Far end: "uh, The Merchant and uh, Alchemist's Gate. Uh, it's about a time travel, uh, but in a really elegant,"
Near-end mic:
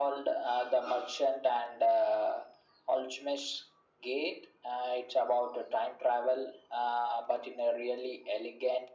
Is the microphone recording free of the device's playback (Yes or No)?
No